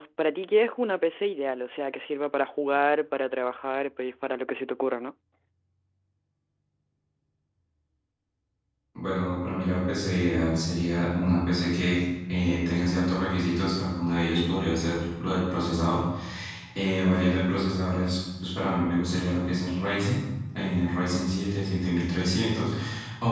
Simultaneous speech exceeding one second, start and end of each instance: none

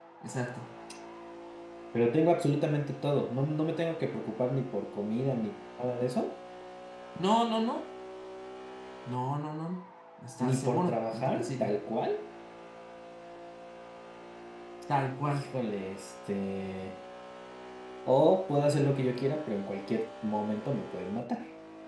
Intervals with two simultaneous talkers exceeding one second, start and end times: 10.4-11.7

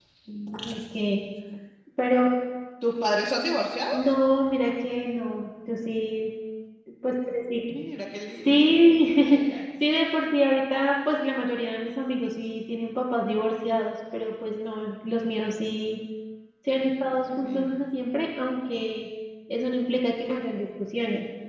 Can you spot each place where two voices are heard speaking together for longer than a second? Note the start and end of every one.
none

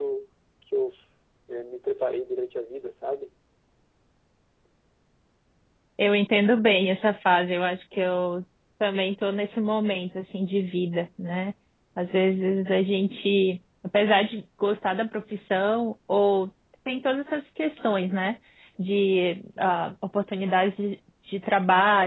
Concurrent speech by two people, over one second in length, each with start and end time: none

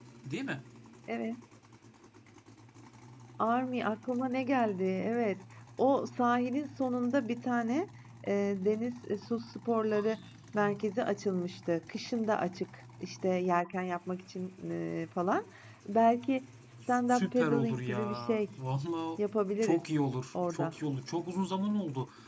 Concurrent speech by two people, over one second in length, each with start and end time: 17.1-18.5

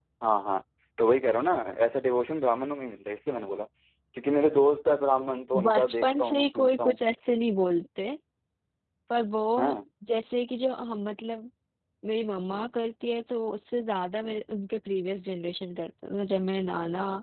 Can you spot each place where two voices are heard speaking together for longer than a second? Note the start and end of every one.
5.6-7.0

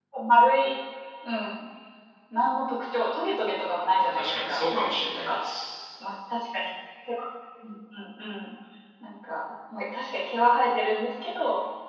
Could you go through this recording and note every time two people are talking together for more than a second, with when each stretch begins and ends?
4.0-5.4

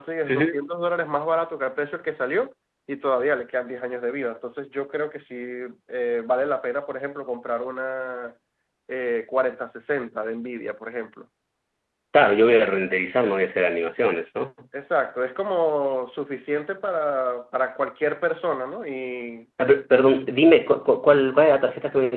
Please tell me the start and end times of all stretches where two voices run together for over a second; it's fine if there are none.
none

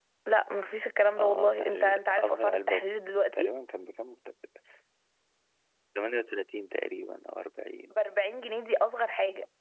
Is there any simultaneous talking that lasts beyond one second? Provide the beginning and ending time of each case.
1.2-2.8

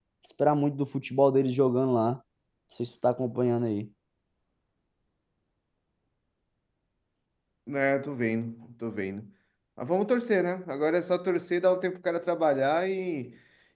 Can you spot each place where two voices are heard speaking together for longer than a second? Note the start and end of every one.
none

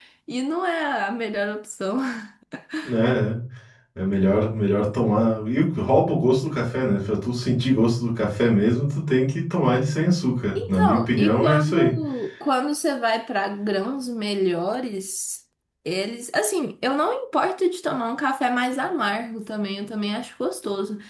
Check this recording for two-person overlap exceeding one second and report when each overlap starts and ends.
10.6-11.9

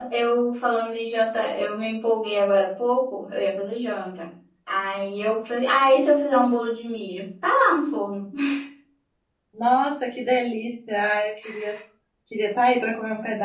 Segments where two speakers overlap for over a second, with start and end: none

